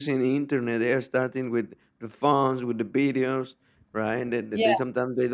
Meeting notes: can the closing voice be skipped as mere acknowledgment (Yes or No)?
Yes